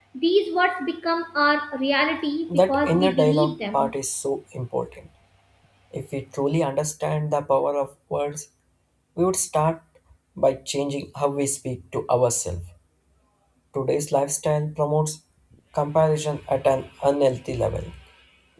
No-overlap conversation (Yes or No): No